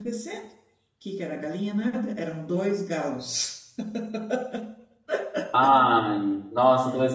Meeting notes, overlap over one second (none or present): none